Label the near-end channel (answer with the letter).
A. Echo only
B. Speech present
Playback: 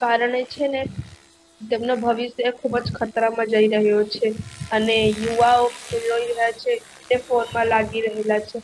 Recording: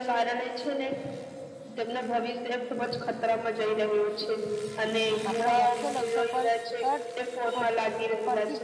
B